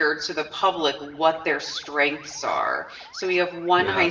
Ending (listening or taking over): listening